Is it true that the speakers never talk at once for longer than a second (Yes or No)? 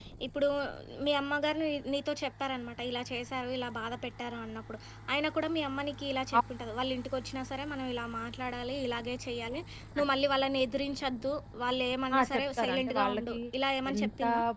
No